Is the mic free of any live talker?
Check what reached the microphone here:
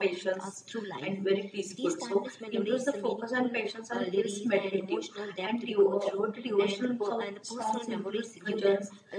Yes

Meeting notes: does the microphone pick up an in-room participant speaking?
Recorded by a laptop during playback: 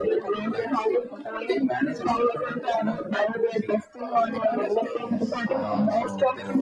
Yes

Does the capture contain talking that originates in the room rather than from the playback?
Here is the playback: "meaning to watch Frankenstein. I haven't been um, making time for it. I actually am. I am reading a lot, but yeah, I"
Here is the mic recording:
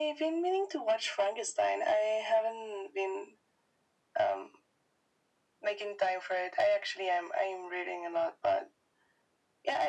No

